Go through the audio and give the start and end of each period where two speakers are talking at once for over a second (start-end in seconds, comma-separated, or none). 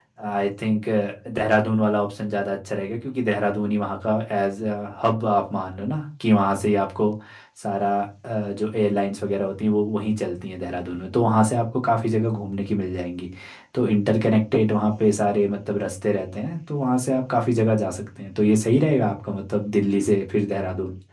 none